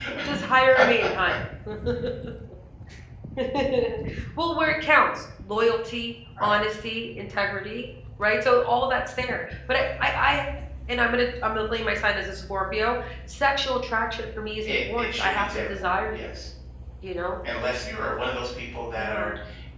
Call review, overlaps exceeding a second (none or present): present